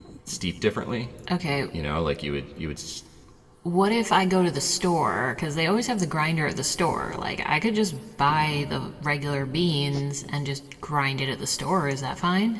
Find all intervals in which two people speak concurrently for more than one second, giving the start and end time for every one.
none

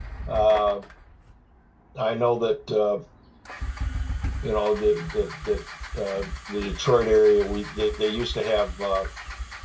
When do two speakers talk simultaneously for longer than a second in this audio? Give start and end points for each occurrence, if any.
none

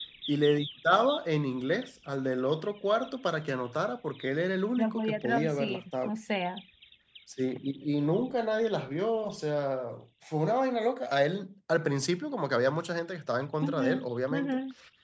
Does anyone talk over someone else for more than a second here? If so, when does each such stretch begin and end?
4.8-6.1

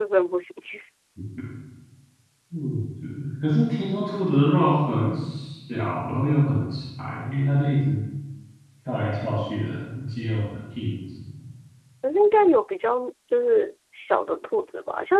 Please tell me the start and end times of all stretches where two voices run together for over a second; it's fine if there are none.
none

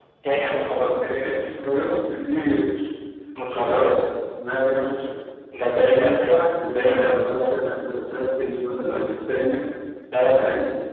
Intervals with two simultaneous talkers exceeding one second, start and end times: 5.8-7.6

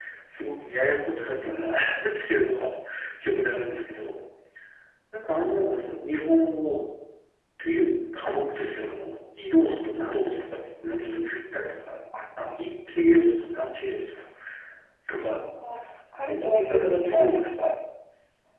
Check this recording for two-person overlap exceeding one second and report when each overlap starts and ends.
16.2-17.5

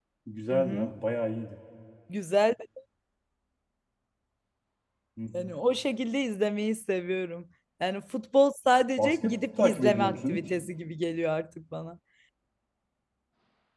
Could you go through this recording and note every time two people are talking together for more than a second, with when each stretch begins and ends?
9.0-10.4

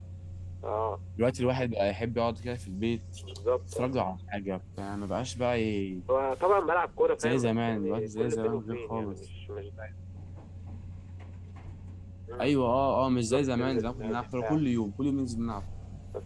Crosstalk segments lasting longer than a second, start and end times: 7.2-9.2, 13.1-14.6

